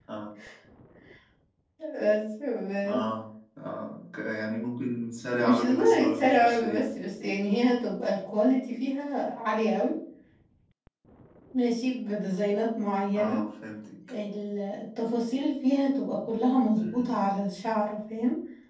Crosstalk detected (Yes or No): Yes